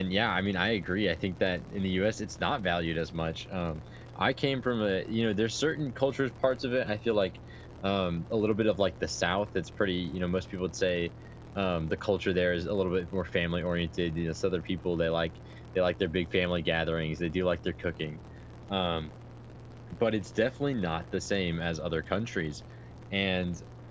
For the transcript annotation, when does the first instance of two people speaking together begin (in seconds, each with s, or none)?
none